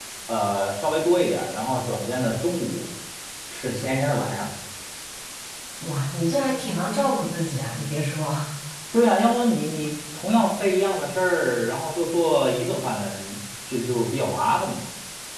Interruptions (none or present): none